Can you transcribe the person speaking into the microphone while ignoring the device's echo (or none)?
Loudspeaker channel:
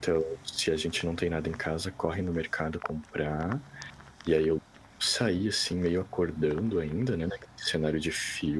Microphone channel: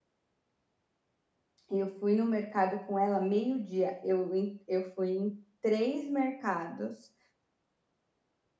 Eu fui no mercado com ela meio-dia, eu ent eu fui em 3 mercados,